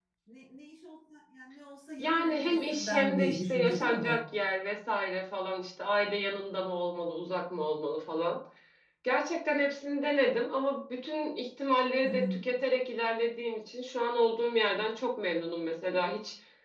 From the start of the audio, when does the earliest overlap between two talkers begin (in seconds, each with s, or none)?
2.0 s